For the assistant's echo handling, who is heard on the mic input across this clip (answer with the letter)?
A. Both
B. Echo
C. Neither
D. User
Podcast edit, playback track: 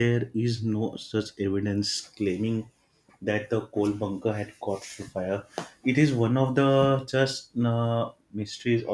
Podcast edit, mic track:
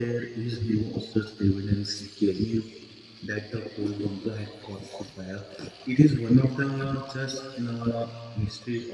B